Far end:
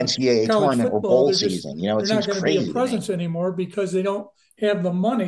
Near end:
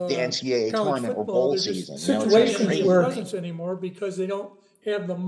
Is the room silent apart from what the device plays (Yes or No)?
No